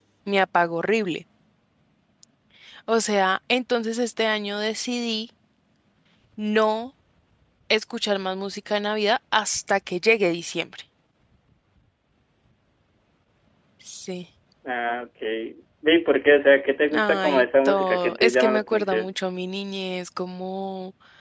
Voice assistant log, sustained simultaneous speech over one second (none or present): present